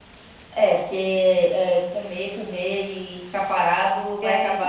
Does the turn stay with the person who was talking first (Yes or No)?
No